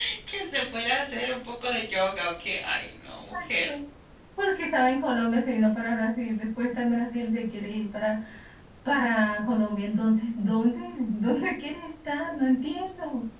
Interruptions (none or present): none